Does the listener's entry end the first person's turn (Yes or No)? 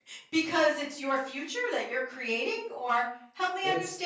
Yes